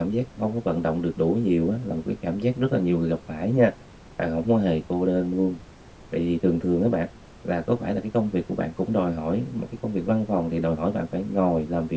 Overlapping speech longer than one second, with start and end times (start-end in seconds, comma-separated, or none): none